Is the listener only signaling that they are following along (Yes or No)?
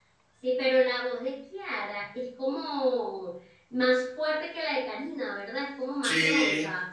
No